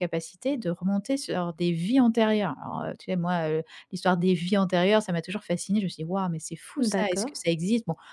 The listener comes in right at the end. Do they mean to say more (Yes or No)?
No